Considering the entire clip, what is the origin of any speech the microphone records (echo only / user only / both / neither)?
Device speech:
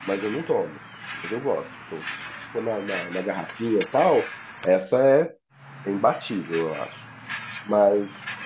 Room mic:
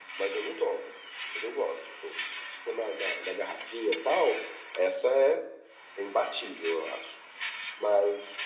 echo only